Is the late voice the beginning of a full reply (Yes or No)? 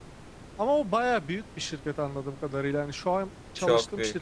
No